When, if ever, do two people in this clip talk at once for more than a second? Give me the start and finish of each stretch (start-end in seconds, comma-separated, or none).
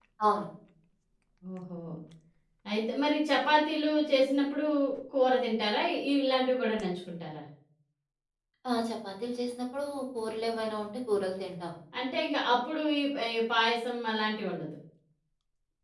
none